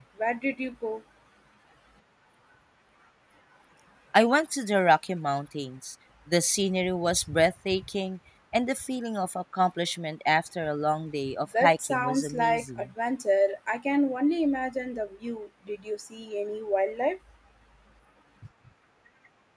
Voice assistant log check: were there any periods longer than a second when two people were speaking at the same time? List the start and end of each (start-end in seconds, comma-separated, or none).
11.6-12.8